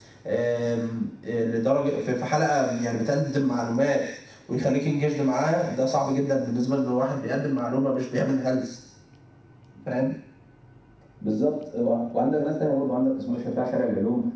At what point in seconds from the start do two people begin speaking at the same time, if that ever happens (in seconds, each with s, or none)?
none